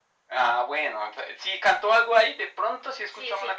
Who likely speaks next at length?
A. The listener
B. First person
A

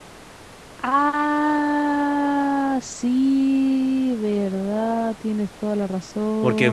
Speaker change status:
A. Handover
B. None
A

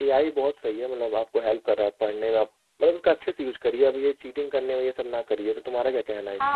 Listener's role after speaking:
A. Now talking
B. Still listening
A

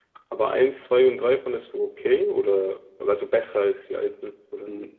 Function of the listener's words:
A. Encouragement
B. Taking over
B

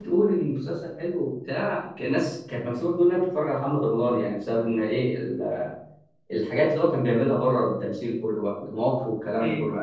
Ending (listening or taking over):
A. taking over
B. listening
A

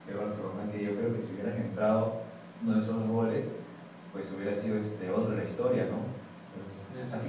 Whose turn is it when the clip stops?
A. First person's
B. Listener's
A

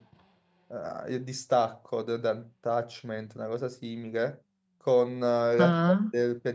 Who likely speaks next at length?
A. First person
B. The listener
A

